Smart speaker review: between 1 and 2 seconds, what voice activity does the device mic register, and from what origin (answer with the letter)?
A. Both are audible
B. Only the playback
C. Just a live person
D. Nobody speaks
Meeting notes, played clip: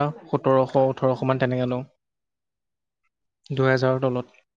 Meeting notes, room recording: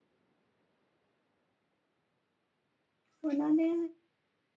D